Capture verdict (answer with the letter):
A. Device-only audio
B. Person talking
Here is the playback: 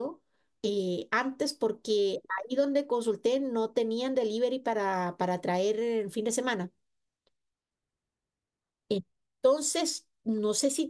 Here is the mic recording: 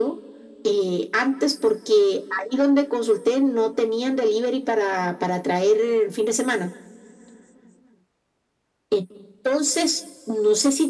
A